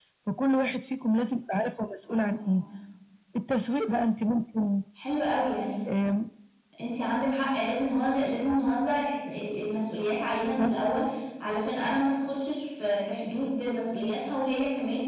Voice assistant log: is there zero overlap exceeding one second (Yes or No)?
Yes